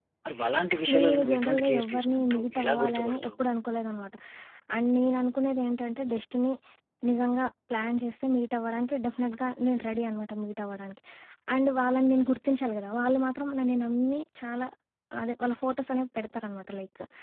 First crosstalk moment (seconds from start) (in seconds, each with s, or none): 0.9 s